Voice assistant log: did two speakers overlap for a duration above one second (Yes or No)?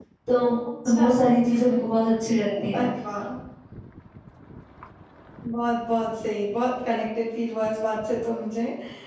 No